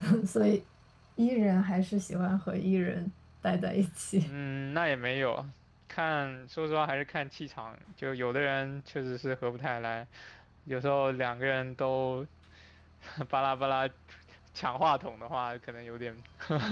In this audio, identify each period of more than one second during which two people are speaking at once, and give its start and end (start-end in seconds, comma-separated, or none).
none